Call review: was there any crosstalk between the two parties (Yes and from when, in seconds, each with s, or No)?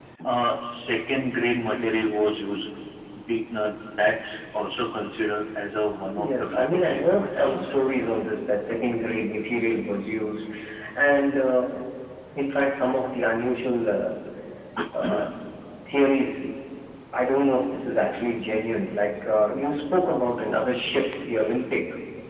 Yes, from 6.2 s